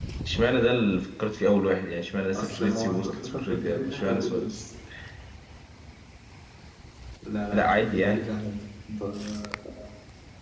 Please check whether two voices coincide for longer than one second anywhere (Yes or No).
Yes